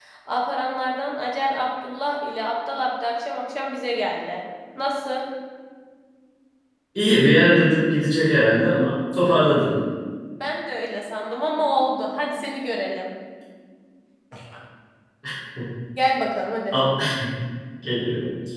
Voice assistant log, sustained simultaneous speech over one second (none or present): none